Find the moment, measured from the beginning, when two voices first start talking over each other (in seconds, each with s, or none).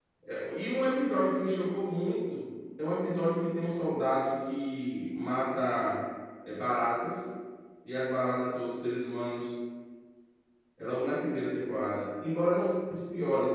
none